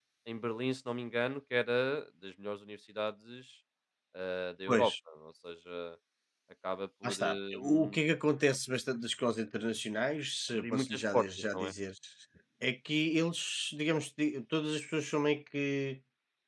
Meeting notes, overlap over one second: present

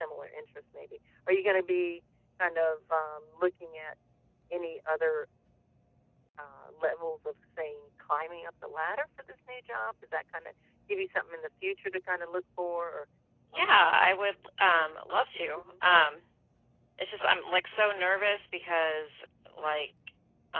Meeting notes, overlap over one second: none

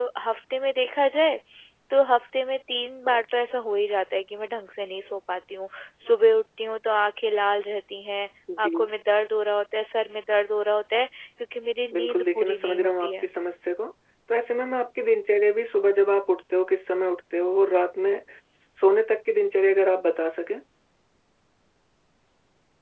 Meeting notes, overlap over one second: present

